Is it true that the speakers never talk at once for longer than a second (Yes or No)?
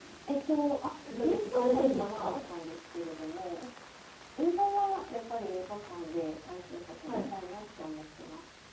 No